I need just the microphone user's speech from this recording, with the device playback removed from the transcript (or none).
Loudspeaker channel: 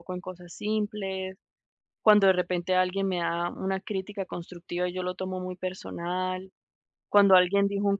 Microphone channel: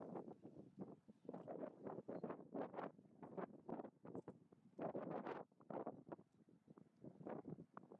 none